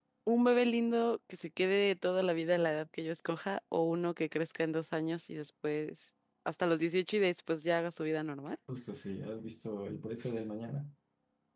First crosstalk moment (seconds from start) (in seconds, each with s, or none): none